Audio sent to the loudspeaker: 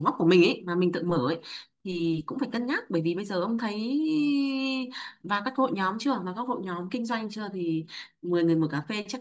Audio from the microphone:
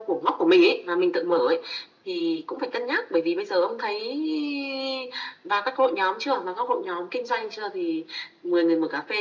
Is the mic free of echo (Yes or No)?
No